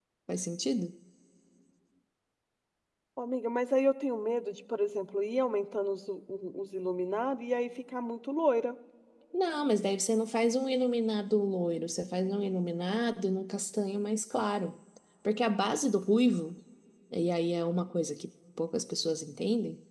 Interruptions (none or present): none